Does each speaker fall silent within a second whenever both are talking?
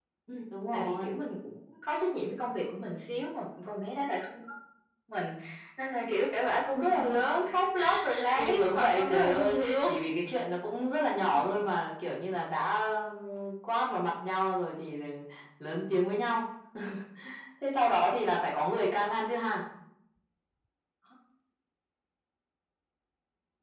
No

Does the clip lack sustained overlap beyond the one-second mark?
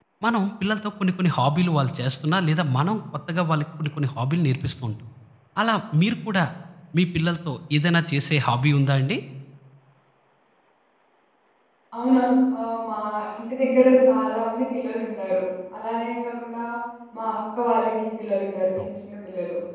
Yes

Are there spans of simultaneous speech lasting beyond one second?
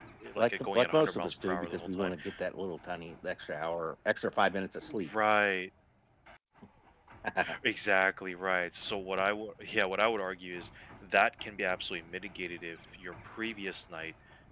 Yes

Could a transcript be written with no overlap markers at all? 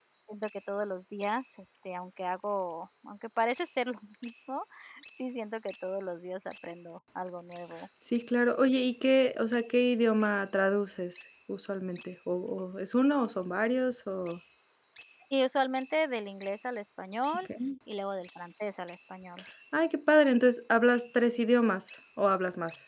Yes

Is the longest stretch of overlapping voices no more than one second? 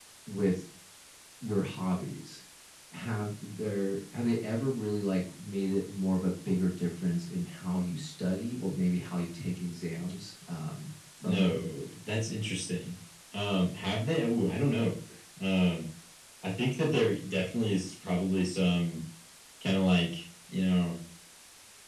Yes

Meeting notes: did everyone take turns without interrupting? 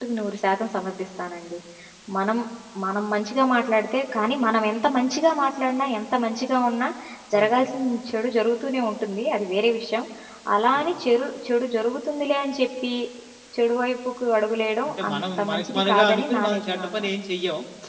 No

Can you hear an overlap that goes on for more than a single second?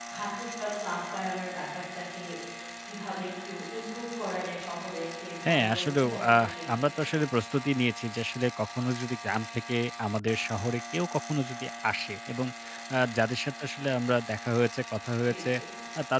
Yes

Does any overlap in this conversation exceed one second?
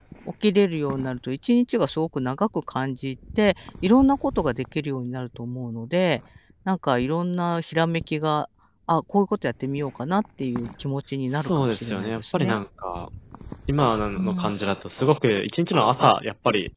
Yes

